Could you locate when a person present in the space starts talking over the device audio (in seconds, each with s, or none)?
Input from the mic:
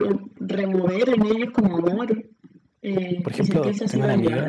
3.2 s